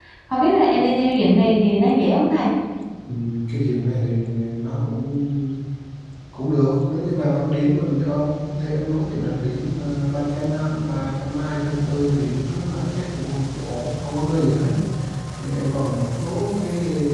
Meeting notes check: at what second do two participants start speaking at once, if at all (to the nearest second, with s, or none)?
none